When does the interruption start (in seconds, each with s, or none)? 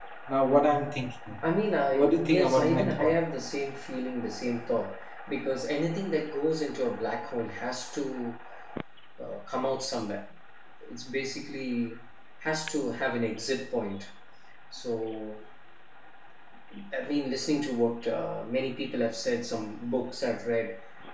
1.9 s